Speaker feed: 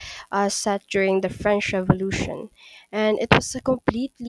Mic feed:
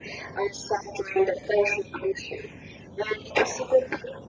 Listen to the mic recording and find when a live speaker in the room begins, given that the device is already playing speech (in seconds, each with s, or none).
none